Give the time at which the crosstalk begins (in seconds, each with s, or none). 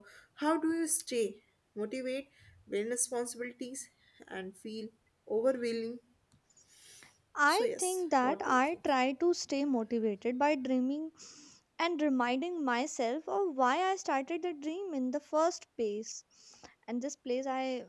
7.5 s